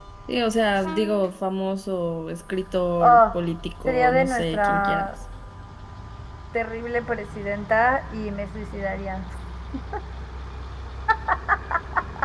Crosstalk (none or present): present